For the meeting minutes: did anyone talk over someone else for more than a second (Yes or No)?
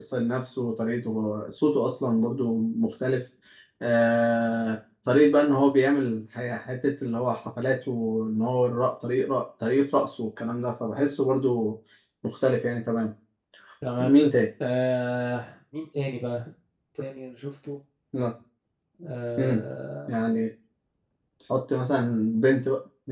No